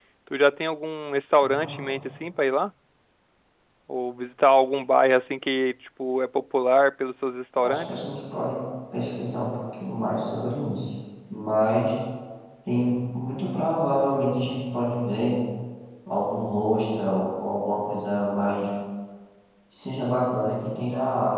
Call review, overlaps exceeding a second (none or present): none